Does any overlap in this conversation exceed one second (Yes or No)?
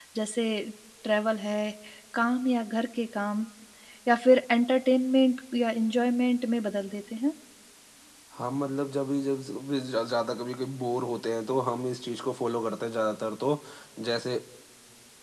No